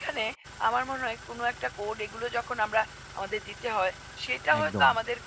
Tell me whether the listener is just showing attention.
Yes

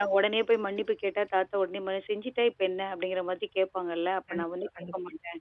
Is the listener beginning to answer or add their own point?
No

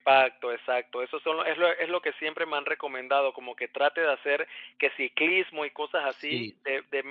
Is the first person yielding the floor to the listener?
No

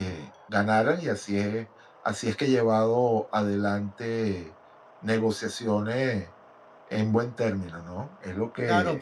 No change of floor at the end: No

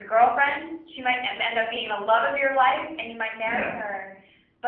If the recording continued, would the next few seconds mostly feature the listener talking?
No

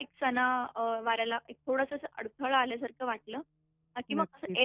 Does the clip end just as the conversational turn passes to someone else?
No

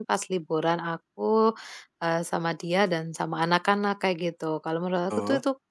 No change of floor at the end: Yes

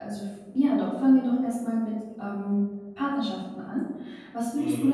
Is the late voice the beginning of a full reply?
No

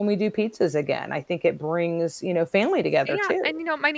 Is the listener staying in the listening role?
No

